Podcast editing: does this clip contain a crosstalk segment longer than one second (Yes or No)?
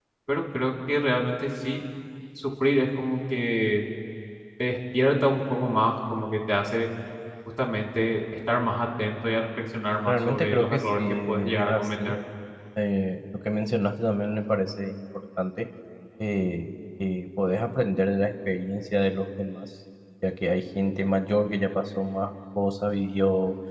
Yes